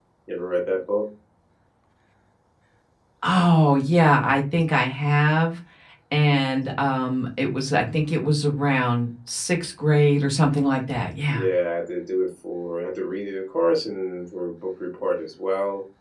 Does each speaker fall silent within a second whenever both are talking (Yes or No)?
Yes